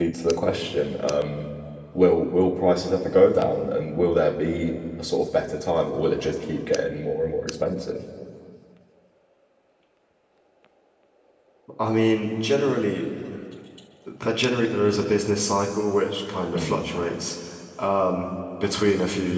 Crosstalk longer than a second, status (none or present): none